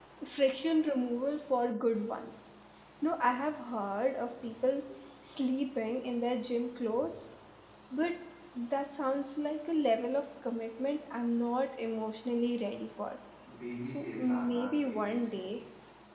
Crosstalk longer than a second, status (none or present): present